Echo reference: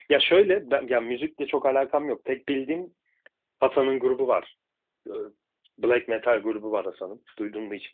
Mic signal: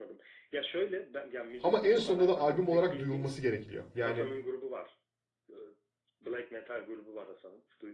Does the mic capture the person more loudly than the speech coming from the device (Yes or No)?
Yes